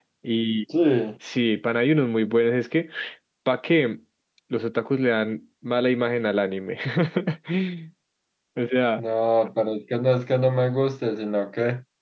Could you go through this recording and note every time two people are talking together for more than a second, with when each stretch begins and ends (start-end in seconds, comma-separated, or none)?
none